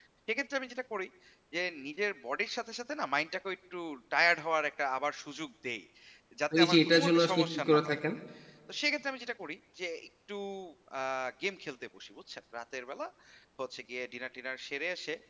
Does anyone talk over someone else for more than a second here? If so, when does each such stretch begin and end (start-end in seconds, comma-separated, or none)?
6.6-8.0